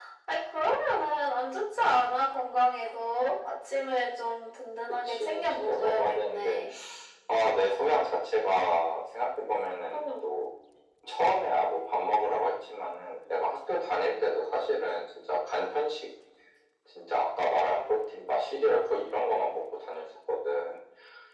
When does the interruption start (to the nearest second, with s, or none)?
5 s